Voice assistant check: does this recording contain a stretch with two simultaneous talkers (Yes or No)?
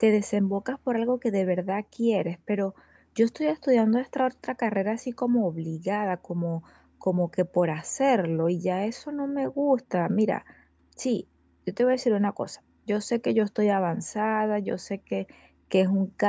No